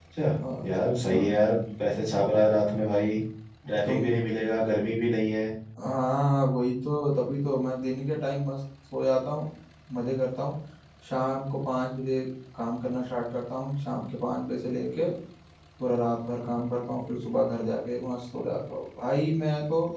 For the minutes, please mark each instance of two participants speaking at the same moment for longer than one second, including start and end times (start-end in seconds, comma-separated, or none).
none